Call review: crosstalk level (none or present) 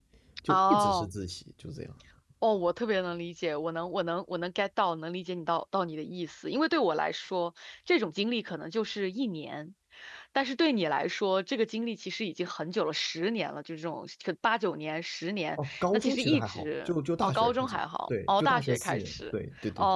present